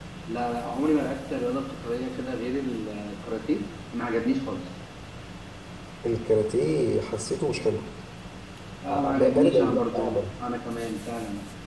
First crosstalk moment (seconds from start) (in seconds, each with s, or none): 8.9 s